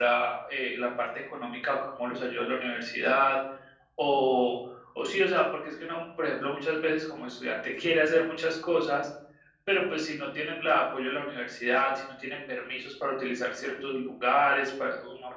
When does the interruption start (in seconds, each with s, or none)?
none